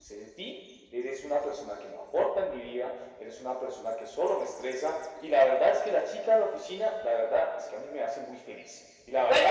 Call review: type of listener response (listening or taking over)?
taking over